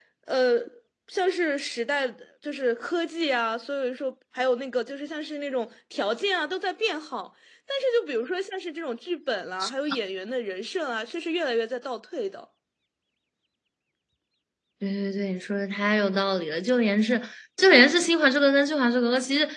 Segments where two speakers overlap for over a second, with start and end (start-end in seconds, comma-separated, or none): none